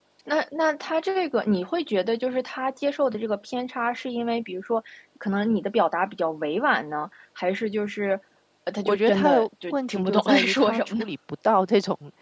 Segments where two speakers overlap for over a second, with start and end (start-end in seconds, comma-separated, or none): 8.8-11.0